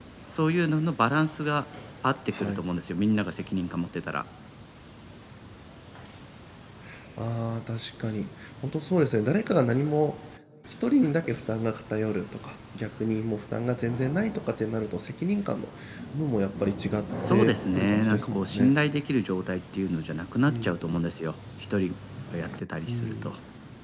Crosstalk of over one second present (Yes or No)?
Yes